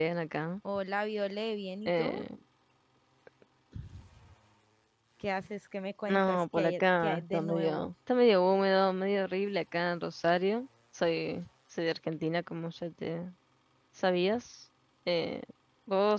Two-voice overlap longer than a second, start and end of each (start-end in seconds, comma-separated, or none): 6.1-7.9